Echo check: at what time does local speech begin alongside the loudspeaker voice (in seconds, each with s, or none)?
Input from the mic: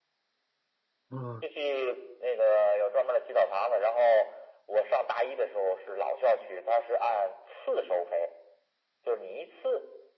1.1 s